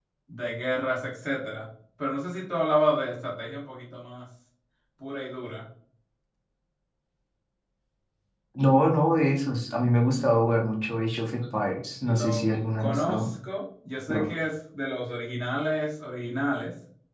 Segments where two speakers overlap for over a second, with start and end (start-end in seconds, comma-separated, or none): 12.1-13.3